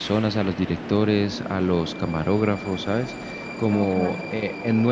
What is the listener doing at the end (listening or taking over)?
listening